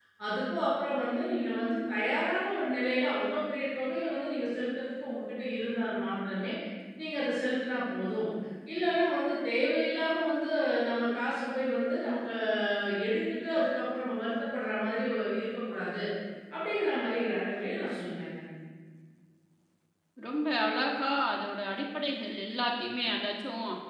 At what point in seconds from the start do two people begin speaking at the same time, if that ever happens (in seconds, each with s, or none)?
none